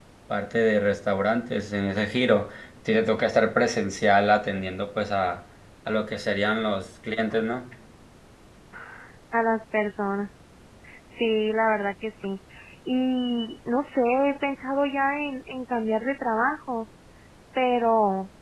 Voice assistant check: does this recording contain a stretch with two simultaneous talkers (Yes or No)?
No